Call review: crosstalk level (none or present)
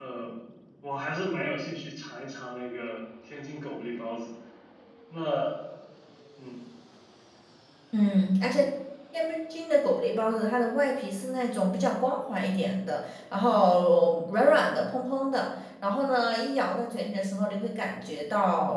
none